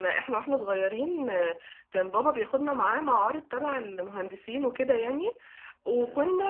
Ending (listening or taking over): listening